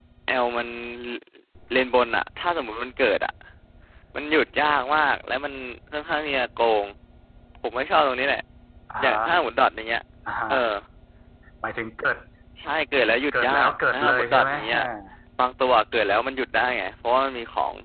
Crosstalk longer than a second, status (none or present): present